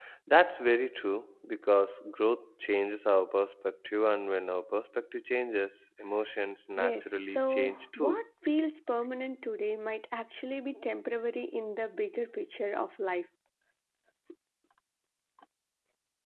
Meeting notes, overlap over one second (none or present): present